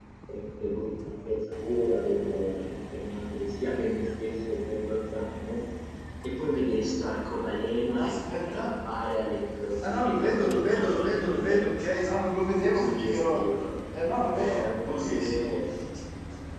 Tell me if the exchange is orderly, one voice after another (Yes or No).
No